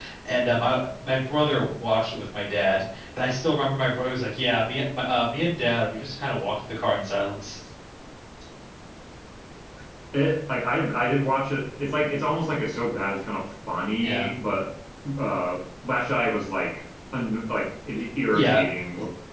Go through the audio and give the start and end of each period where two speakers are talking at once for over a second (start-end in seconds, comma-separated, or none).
none